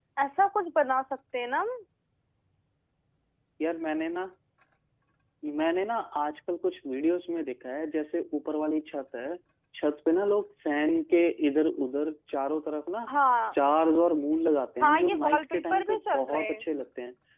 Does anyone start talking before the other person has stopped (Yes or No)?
Yes